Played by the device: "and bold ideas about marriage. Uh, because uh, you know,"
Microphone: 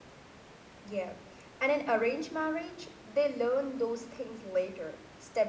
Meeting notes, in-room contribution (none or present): present